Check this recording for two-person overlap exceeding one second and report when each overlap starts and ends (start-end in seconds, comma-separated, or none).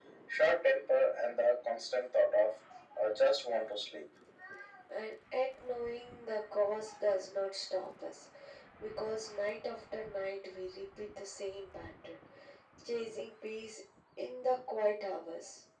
none